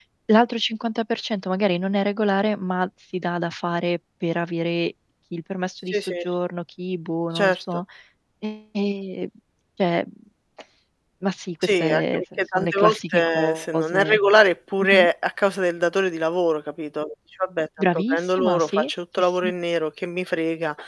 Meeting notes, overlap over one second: present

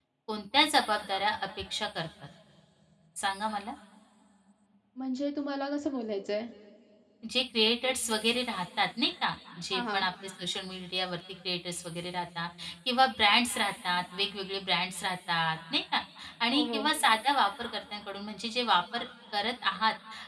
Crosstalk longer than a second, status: none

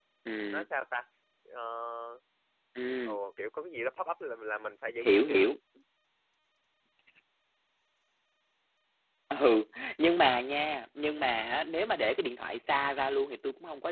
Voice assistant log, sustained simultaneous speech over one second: none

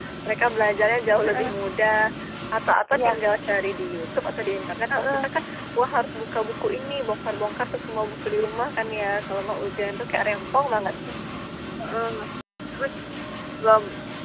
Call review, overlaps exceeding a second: none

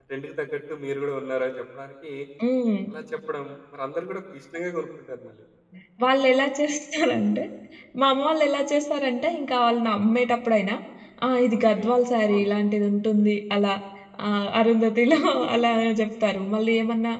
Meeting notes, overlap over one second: none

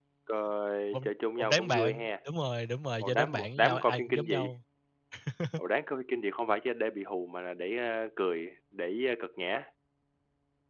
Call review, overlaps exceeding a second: present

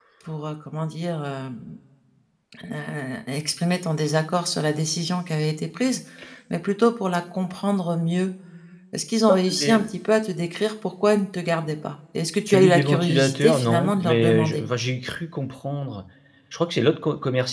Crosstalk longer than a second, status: present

